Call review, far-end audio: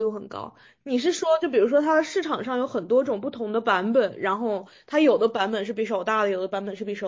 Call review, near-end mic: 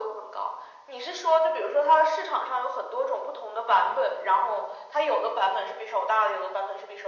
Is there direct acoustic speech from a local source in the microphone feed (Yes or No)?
No